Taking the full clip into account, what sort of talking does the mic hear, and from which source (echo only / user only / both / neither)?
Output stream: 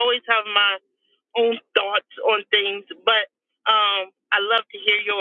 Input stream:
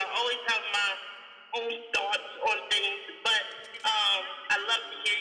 both